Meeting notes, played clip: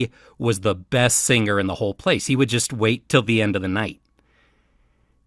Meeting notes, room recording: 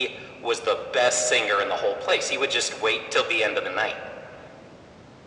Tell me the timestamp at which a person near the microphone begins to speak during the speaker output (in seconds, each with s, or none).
none